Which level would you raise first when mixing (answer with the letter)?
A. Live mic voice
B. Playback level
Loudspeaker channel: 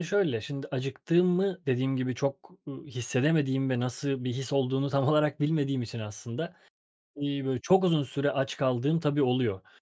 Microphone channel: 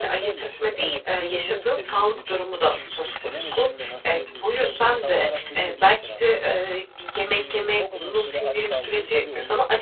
B